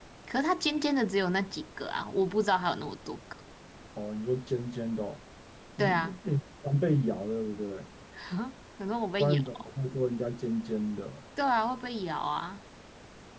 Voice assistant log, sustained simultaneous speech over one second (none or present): none